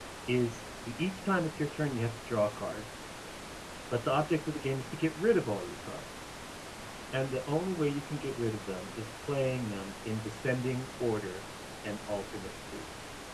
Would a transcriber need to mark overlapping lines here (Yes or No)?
No